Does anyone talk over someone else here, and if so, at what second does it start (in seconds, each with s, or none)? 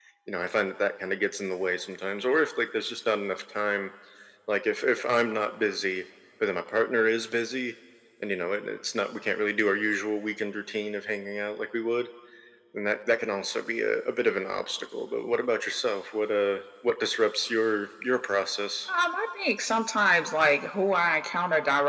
none